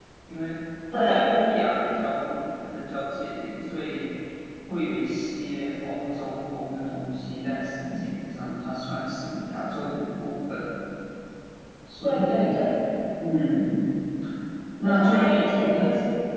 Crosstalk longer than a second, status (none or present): present